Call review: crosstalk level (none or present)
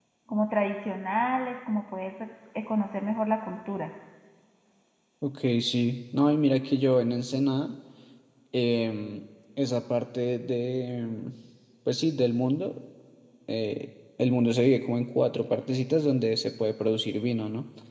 none